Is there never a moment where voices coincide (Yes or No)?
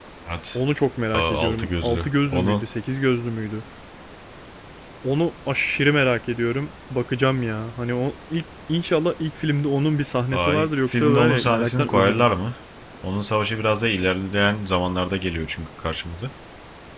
No